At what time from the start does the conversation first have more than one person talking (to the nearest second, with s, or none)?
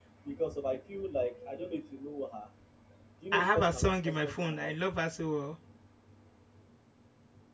3 s